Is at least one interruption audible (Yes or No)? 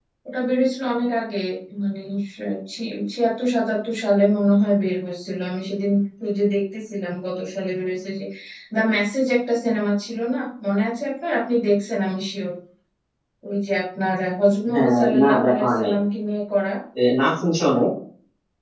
Yes